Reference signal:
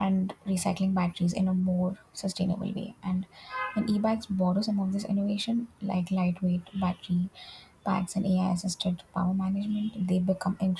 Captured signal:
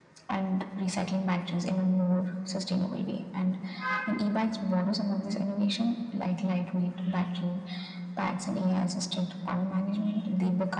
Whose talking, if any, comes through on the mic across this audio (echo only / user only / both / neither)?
echo only